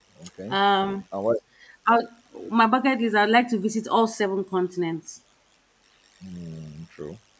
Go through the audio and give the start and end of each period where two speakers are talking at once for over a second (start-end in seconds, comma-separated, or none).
none